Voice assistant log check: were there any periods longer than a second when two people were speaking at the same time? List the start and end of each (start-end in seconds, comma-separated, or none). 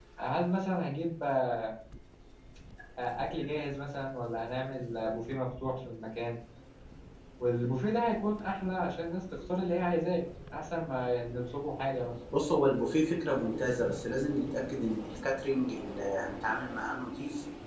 none